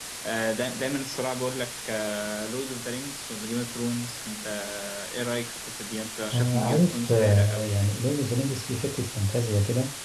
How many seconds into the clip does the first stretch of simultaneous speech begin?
6.3 s

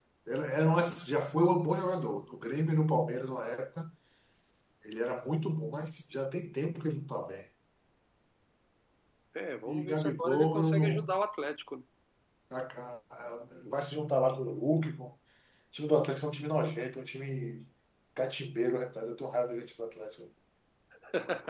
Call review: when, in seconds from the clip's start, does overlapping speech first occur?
9.7 s

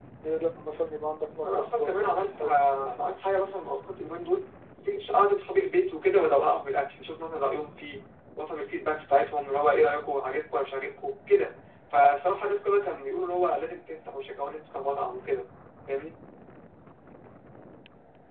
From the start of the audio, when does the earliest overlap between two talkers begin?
1.4 s

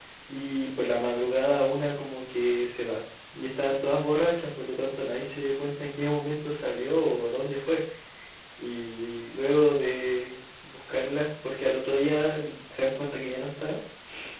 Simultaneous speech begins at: none

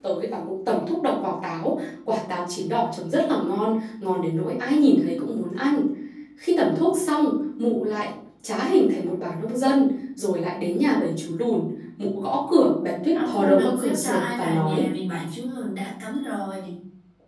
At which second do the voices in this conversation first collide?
13.1 s

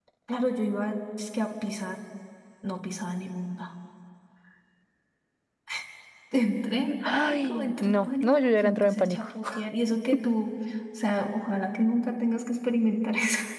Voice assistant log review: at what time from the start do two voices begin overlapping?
7.0 s

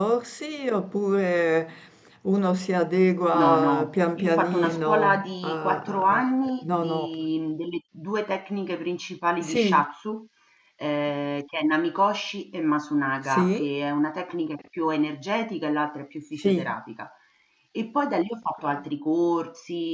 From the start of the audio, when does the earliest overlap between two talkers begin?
3.3 s

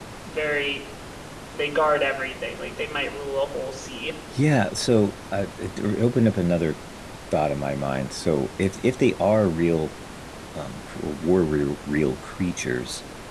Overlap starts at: none

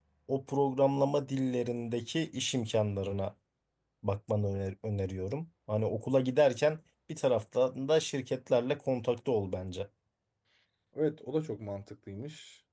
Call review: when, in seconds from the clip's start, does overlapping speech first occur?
none

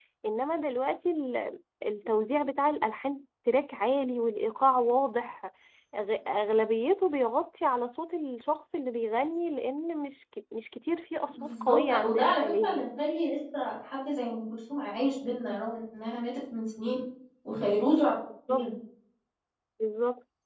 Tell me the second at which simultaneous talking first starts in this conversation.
11.3 s

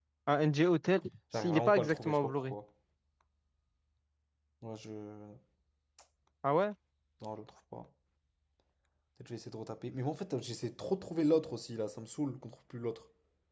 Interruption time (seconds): 1.3 s

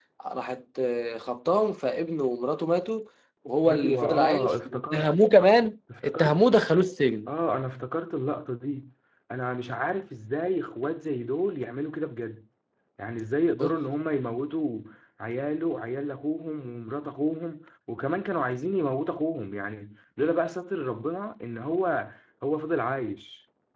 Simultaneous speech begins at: 3.7 s

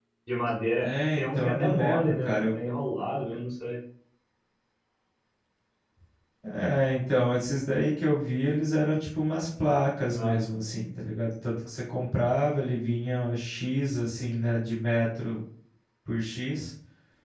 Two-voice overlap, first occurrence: 0.8 s

